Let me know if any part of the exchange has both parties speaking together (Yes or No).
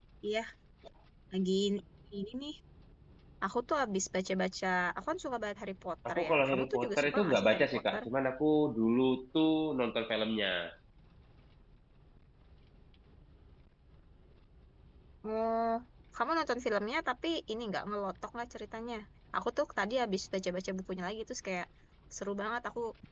Yes